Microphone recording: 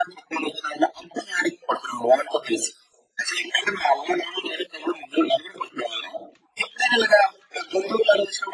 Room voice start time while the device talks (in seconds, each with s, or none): none